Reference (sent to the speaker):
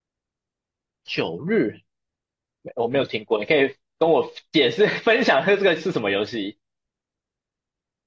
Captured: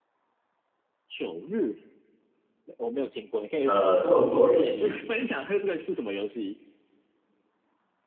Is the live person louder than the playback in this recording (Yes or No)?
Yes